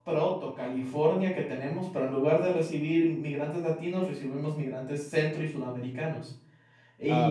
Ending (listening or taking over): listening